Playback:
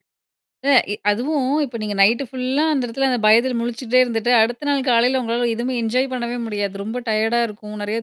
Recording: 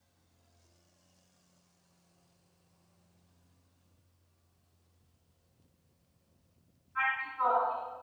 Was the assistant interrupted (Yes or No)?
Yes